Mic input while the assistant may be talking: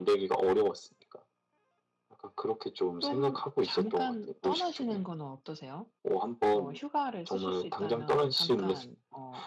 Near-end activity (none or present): present